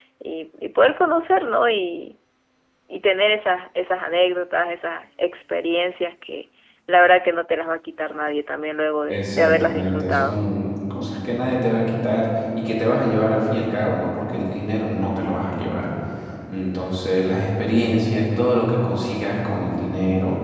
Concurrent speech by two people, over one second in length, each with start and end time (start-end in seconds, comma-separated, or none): 9.1-10.4